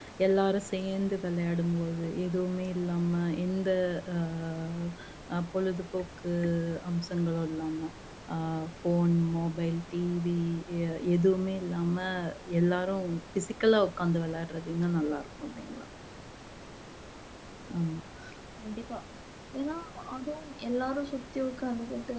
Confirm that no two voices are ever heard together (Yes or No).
Yes